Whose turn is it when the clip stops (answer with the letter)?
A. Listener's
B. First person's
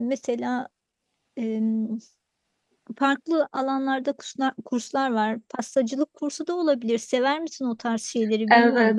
A